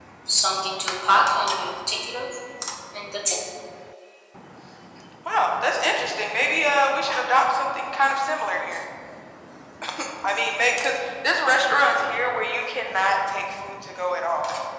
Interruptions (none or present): none